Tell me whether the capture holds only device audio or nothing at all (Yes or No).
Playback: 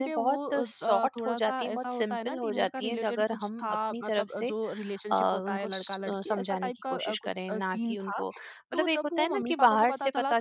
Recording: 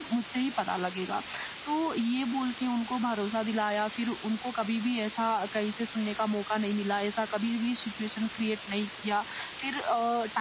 No